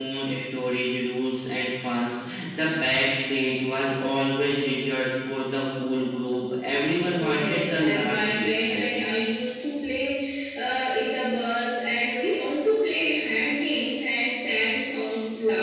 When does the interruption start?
7.2 s

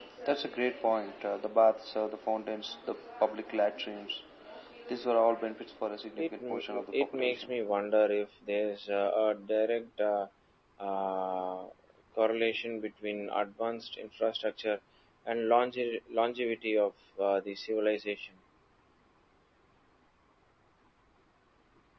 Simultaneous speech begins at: 6.2 s

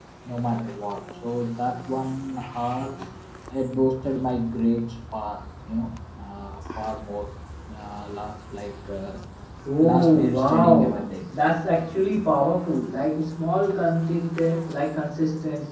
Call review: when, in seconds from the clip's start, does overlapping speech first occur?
9.8 s

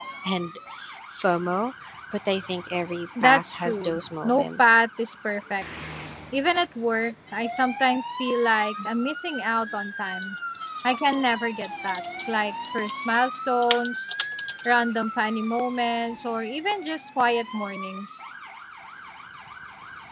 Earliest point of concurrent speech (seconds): 3.2 s

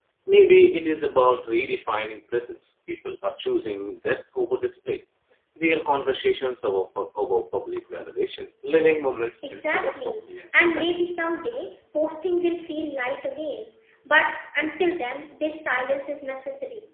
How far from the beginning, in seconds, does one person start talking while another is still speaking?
9.4 s

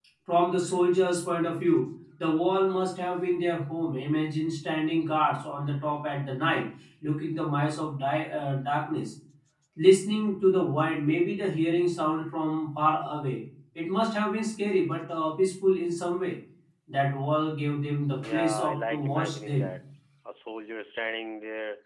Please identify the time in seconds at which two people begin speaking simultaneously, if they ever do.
18.1 s

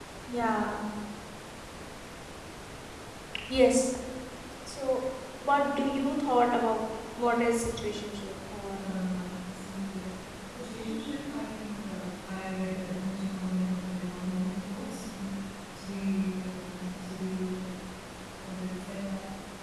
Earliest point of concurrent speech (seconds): none

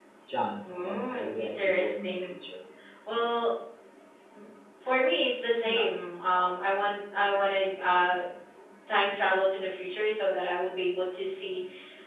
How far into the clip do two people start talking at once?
0.7 s

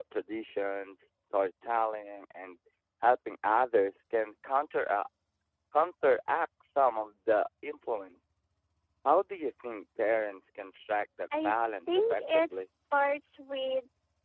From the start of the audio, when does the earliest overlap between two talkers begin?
11.3 s

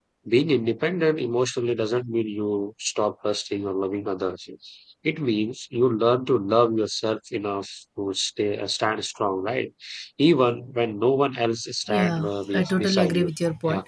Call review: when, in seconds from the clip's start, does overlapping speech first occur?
11.9 s

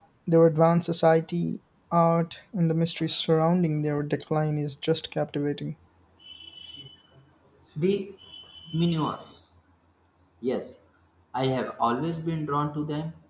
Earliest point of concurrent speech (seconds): none

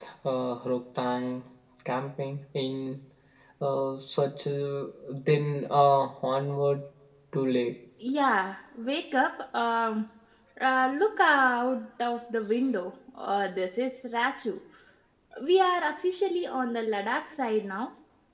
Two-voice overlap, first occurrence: none

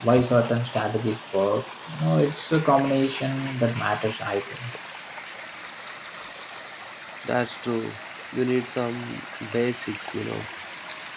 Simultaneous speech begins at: none

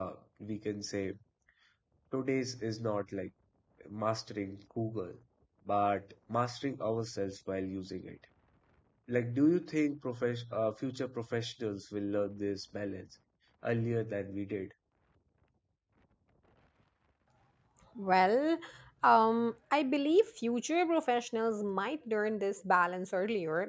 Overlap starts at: none

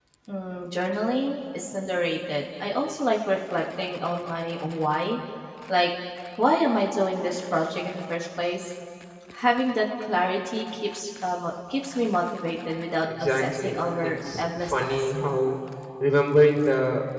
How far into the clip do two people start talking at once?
13.1 s

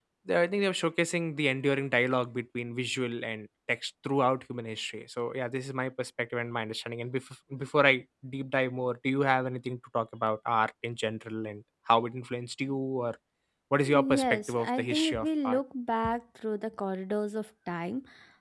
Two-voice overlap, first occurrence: 13.9 s

